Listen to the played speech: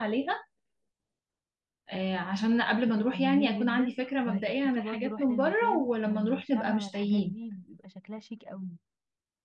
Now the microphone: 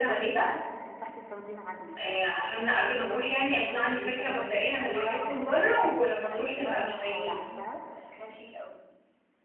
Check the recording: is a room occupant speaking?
Yes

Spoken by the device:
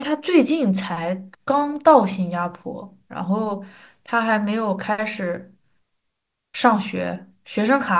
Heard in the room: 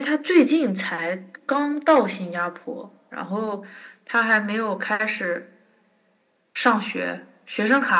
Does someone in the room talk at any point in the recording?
No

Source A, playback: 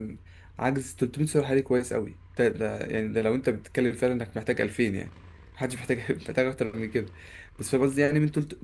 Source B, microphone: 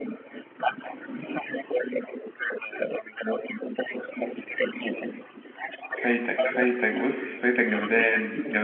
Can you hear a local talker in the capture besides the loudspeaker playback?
Yes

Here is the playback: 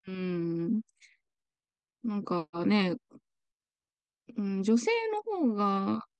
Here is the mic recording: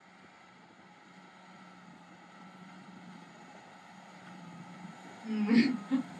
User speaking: Yes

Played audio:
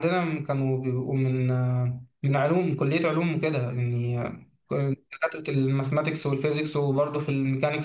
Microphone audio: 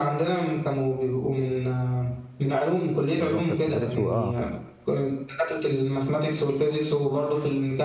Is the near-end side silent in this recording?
No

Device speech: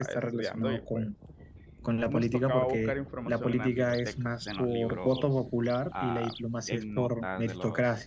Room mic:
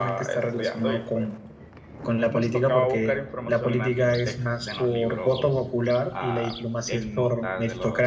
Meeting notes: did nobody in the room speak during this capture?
Yes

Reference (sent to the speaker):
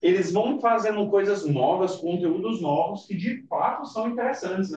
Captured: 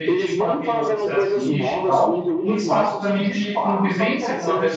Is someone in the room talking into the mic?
Yes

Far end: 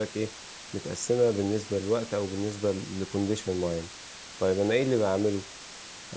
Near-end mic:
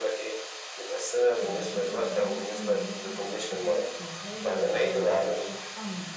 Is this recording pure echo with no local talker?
No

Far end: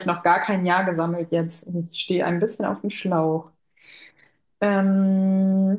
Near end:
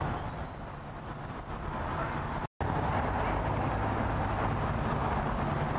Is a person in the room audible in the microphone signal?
No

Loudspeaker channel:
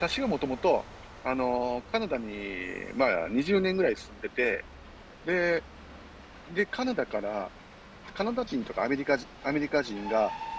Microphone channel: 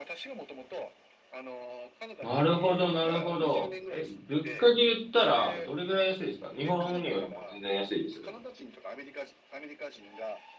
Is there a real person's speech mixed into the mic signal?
Yes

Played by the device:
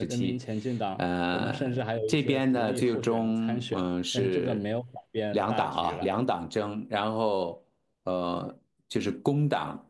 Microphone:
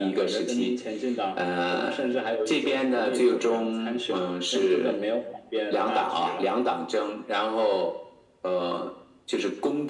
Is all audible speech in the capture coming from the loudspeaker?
Yes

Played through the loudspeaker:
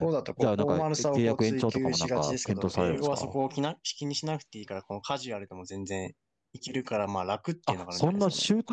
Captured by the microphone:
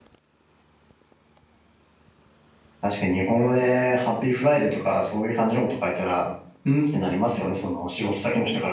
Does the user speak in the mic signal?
Yes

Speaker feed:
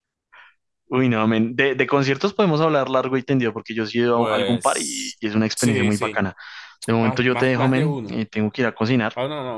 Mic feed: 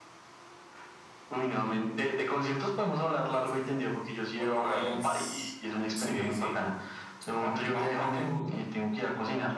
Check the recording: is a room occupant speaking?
Yes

